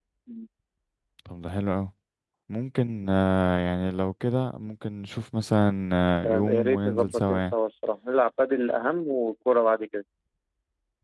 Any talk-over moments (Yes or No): Yes